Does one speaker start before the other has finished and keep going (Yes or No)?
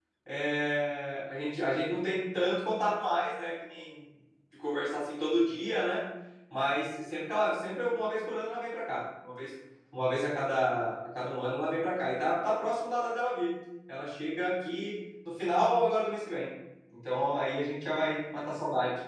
No